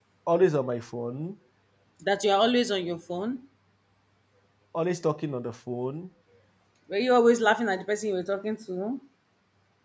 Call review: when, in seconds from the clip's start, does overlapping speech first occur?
none

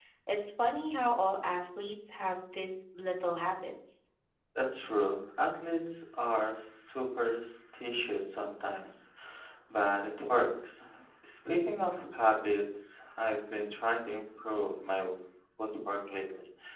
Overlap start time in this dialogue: none

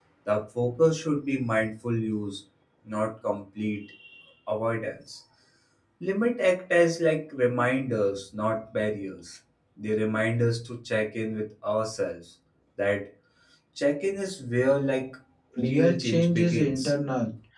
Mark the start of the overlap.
15.7 s

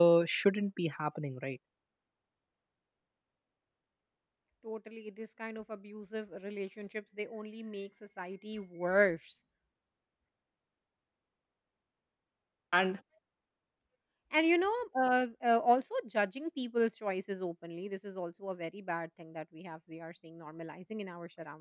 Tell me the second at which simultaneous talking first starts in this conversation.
none

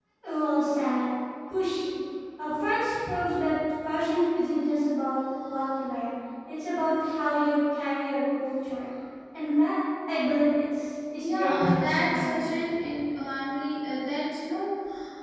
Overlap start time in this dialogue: 11.2 s

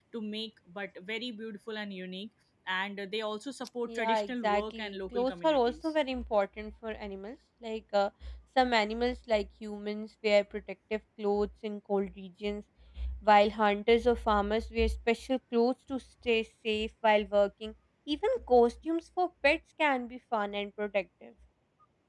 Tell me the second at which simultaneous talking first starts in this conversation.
3.9 s

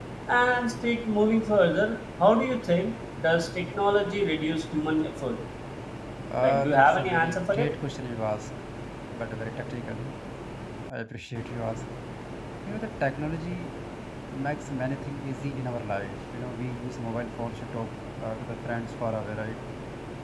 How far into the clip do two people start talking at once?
6.4 s

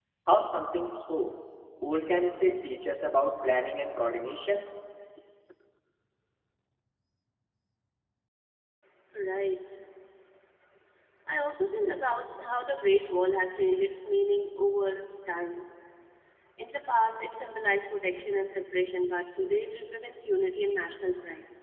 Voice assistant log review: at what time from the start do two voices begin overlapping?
none

